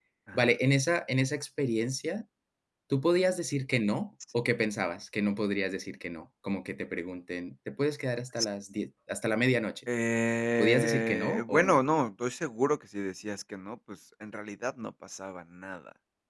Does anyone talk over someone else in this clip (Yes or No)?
Yes